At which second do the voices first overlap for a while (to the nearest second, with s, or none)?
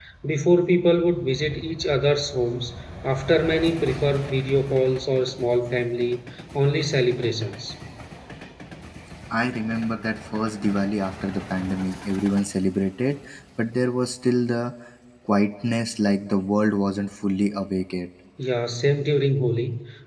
none